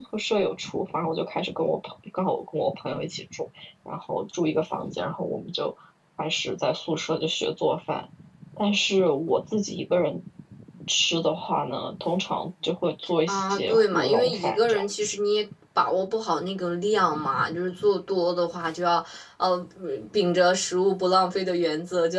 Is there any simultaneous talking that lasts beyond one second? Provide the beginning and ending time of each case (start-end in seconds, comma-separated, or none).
13.3-14.8